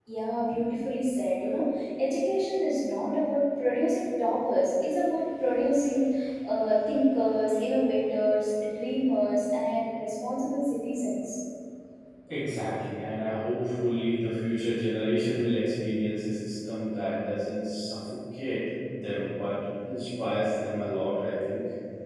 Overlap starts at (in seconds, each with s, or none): none